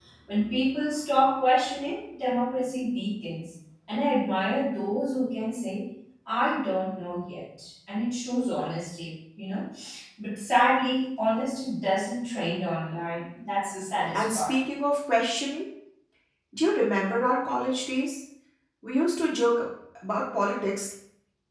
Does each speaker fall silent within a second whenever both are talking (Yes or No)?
Yes